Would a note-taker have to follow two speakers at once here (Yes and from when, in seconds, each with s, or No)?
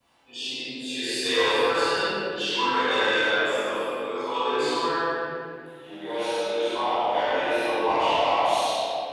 No